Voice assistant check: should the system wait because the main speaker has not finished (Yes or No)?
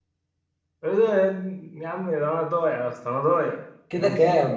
No